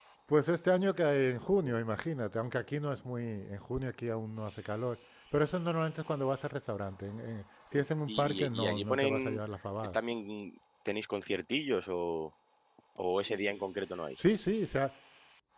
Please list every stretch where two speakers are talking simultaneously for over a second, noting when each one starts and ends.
7.7-9.4

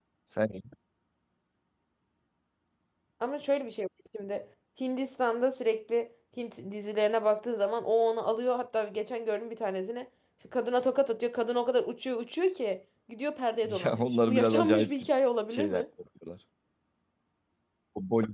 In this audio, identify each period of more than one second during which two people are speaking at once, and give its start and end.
13.6-14.9

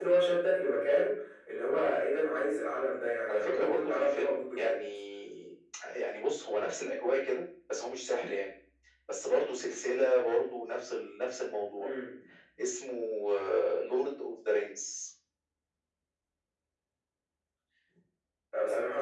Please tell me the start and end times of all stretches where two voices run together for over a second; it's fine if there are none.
3.3-4.8

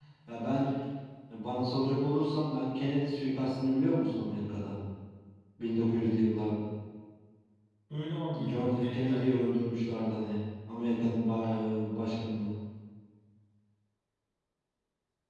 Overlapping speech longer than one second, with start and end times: 8.3-9.5

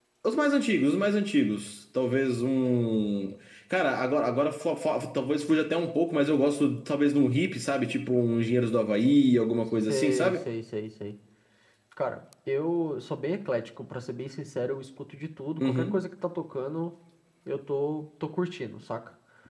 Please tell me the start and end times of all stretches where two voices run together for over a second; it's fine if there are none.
none

